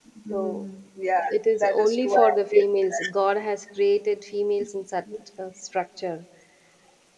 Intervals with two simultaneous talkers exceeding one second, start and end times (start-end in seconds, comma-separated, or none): 1.3-2.8